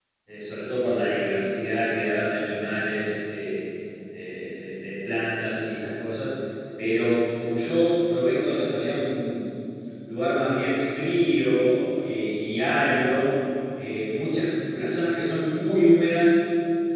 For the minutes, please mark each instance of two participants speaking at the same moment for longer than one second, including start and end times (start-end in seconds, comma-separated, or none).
none